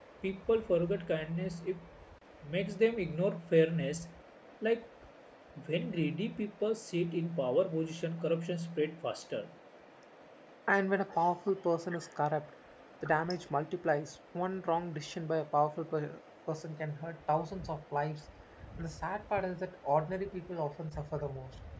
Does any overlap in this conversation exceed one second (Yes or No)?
No